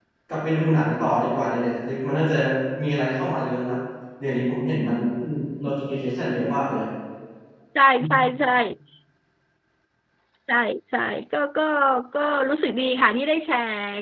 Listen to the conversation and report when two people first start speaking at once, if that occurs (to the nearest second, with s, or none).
none